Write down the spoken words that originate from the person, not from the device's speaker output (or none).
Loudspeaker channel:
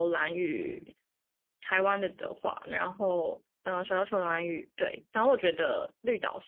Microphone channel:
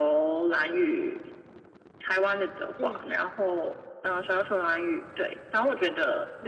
嗯